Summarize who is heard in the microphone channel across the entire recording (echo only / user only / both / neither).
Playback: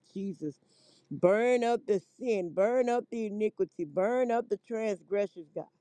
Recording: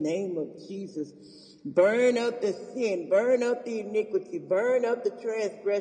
echo only